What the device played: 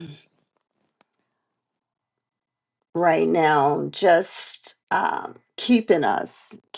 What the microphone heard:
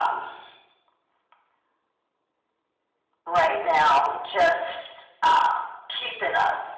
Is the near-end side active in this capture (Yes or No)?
No